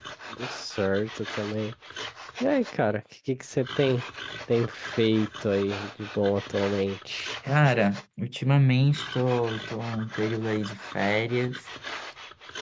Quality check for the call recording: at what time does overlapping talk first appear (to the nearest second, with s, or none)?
none